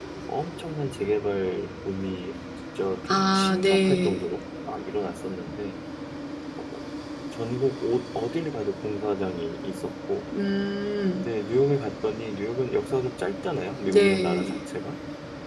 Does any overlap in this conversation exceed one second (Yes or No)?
Yes